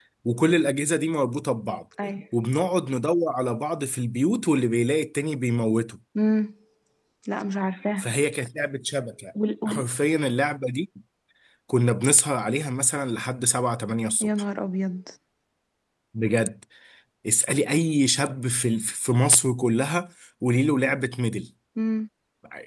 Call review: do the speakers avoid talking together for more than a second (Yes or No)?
Yes